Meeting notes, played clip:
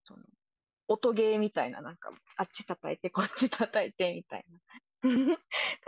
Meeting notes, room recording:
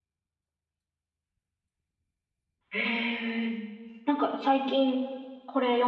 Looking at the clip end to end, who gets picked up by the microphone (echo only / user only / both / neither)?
user only